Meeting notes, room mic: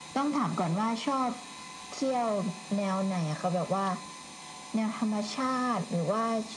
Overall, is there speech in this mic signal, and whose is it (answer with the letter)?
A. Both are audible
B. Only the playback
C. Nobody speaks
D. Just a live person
B